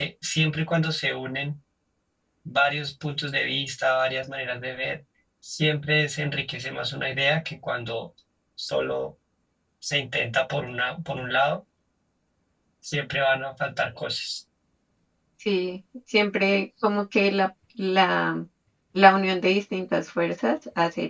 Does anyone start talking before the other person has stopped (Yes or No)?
No